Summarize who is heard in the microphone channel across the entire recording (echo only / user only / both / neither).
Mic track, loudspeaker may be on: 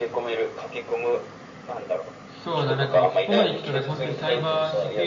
both